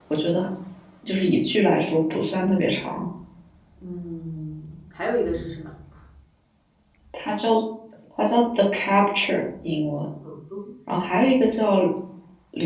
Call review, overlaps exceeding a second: none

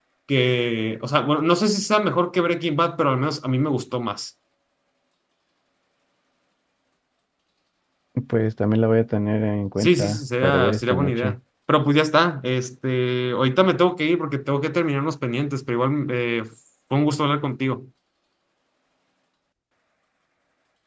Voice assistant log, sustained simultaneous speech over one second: present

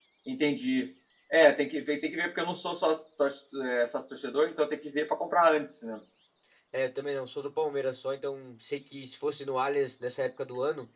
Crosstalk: none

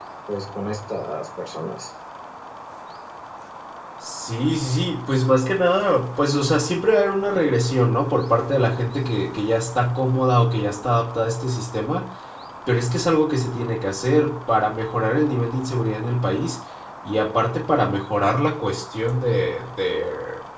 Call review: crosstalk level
none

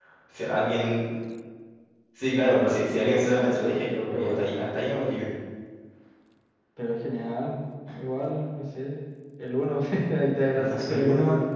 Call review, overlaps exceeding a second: present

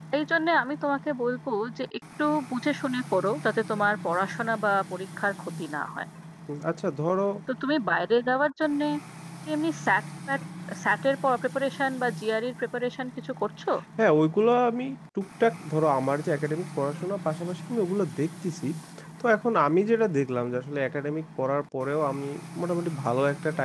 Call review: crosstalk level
none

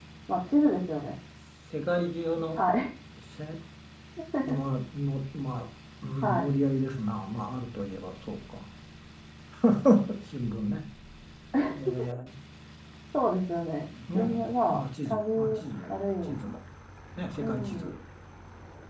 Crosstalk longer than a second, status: present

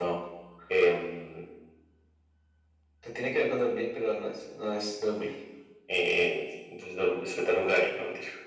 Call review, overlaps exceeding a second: none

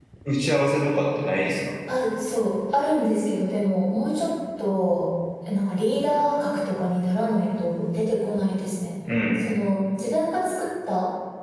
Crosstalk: none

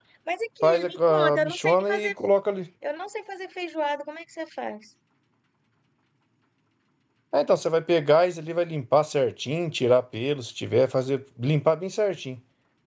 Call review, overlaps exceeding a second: present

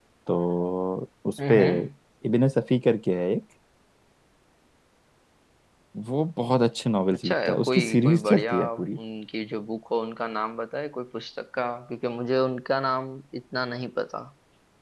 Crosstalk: present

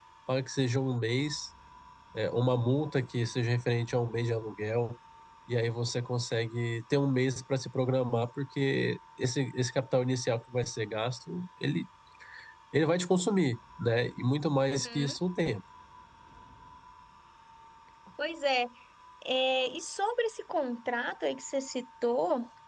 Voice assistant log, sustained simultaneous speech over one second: none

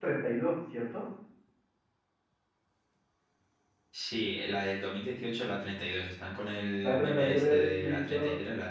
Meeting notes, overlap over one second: present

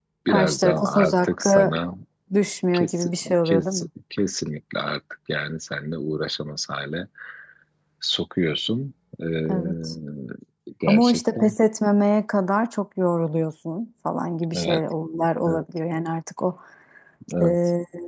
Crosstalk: present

